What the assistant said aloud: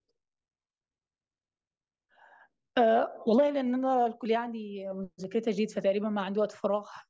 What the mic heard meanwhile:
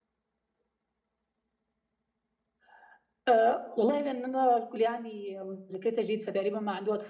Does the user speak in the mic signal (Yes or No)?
No